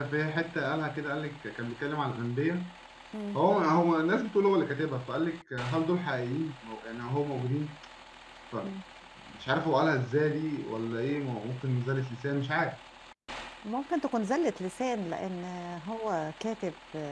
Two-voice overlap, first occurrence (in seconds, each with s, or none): none